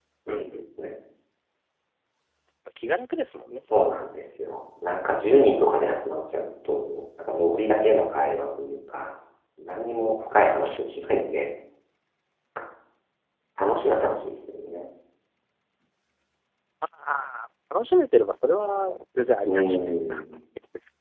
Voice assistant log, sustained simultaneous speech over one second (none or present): none